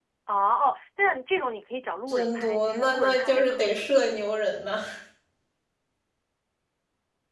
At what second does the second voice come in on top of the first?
2.1 s

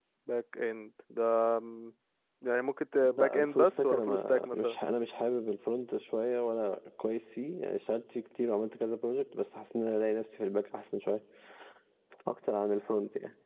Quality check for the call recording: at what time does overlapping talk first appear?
3.2 s

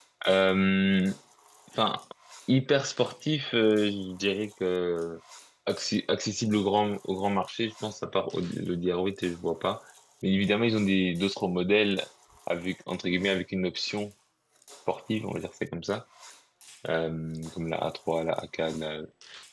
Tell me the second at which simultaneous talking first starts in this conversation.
none

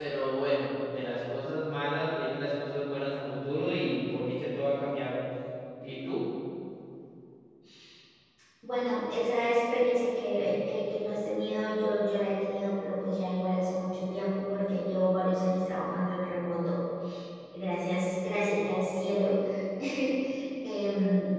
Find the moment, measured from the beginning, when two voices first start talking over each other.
none

